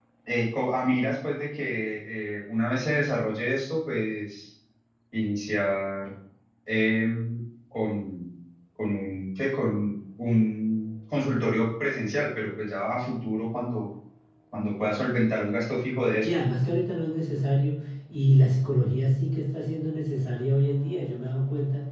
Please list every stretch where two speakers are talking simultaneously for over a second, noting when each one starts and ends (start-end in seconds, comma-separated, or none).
none